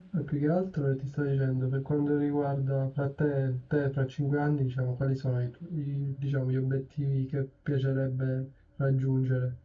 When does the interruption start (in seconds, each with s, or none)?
none